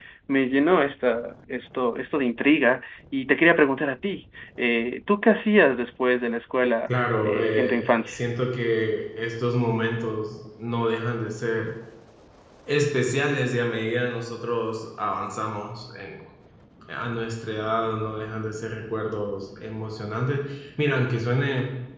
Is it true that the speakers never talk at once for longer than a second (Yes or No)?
No